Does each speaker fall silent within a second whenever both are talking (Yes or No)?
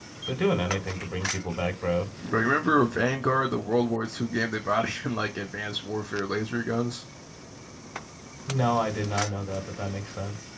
Yes